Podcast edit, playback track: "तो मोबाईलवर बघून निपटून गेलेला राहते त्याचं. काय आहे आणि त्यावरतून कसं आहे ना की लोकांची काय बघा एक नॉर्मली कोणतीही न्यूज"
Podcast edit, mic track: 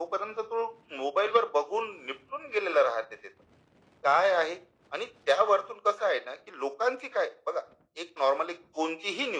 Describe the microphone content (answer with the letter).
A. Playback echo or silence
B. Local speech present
A